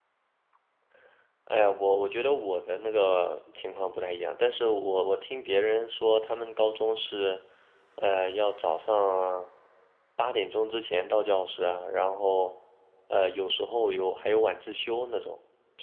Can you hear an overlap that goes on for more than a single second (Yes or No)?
No